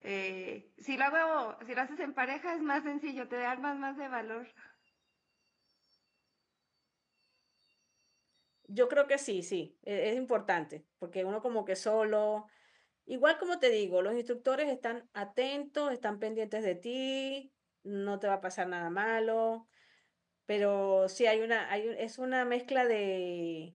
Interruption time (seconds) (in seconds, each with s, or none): none